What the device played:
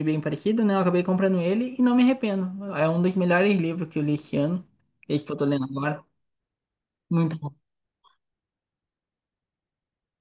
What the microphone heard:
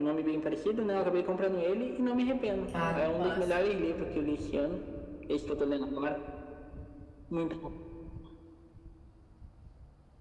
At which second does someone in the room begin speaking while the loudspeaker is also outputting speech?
3 s

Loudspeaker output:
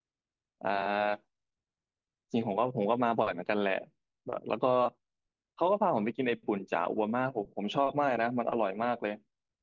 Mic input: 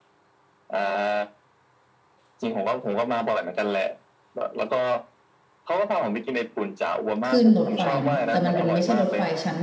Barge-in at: 7 s

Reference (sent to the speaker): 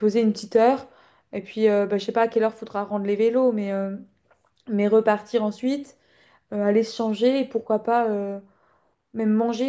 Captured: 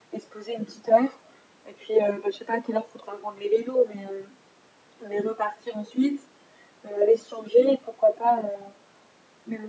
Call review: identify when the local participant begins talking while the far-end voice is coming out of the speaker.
none

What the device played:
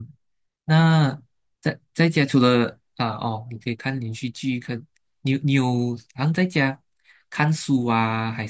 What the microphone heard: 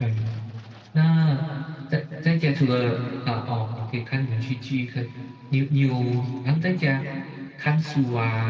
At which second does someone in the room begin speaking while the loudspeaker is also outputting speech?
none

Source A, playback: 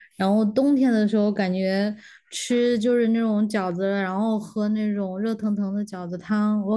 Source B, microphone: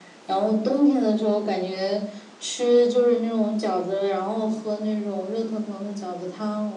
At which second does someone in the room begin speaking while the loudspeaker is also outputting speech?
none

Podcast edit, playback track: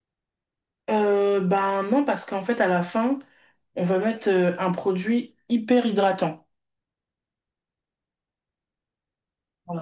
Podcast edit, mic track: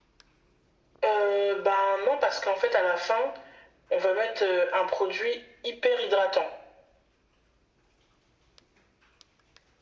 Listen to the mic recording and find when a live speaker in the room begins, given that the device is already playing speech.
none

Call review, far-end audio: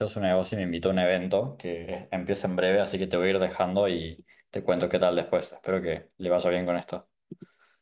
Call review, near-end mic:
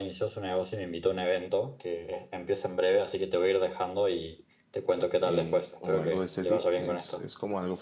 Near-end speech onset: 5 s

